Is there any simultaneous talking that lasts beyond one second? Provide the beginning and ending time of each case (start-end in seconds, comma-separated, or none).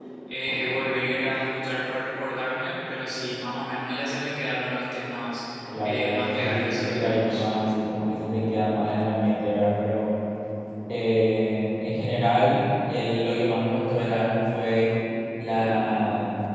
5.8-7.5